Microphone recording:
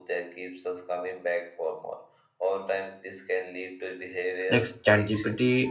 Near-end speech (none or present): present